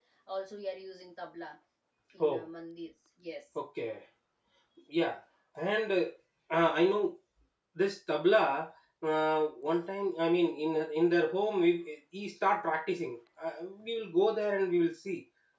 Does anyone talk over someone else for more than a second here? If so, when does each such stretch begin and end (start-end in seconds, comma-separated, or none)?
none